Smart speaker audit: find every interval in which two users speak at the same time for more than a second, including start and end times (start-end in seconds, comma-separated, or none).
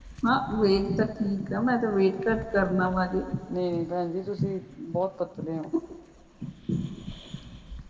none